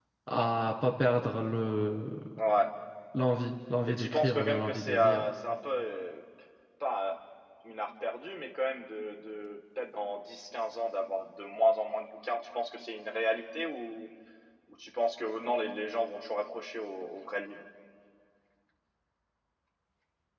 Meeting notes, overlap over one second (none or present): present